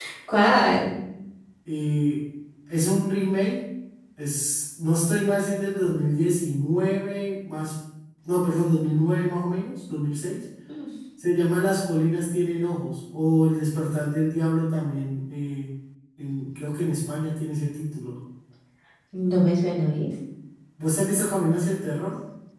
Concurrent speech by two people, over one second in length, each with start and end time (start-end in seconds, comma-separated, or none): none